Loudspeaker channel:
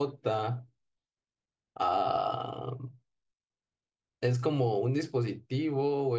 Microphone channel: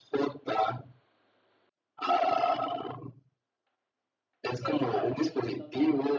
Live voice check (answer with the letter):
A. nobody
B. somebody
B